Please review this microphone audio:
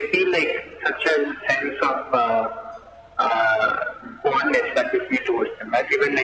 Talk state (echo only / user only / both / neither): echo only